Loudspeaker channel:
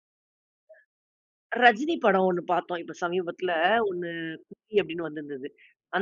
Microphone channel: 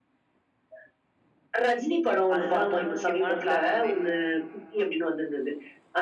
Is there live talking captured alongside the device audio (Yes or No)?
Yes